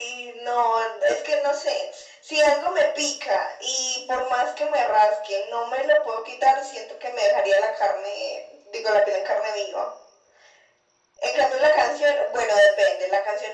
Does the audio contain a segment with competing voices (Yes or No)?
No